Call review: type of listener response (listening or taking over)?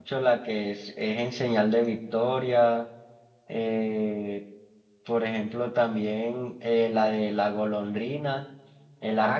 taking over